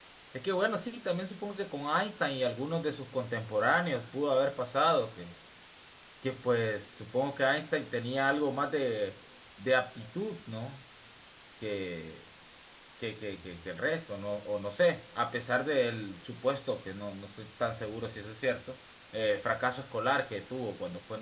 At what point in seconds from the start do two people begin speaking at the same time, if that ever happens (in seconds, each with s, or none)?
none